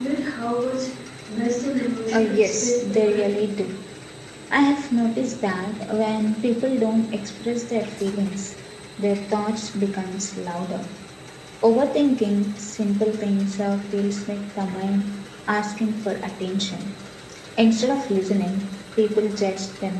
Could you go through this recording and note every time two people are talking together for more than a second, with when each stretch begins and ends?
2.1-3.3

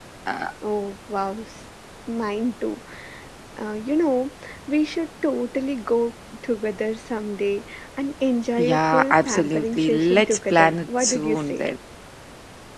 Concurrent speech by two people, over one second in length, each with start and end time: 8.6-11.6

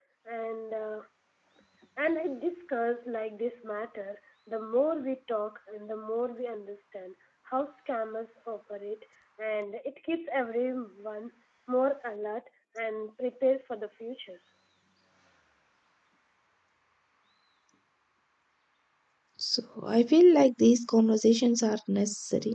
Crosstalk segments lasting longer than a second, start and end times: none

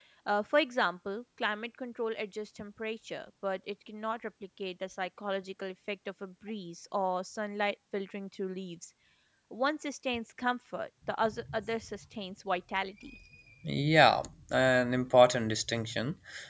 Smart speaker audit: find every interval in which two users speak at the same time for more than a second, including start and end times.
none

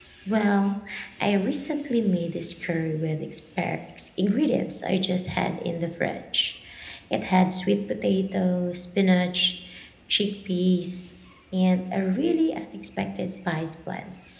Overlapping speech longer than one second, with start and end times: none

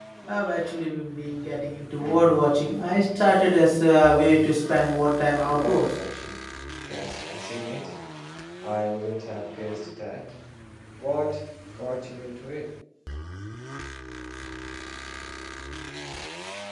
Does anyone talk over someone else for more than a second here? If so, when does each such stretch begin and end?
none

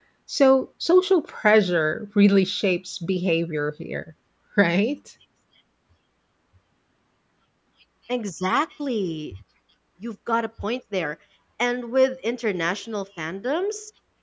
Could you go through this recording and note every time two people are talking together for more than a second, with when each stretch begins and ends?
none

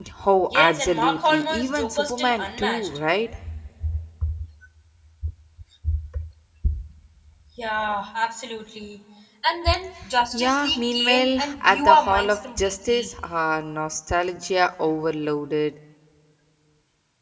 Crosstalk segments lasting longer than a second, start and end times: 0.6-2.9, 10.3-13.1

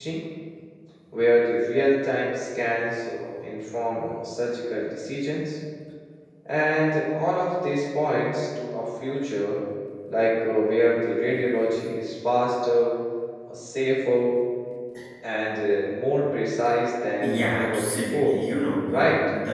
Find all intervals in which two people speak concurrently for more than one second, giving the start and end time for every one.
17.2-18.4

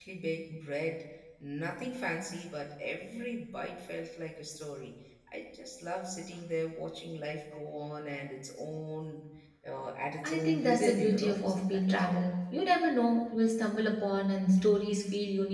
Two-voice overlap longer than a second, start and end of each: 10.2-12.2

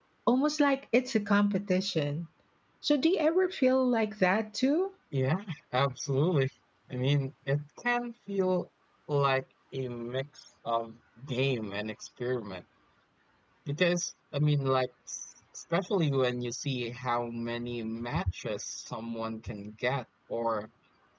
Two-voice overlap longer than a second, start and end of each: none

